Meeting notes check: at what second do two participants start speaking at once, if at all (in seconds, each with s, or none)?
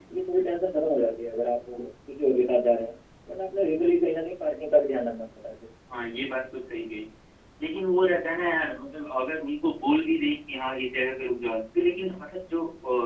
none